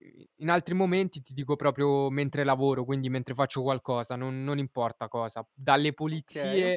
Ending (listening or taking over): listening